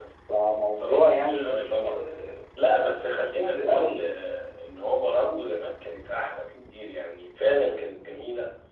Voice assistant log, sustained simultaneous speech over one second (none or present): present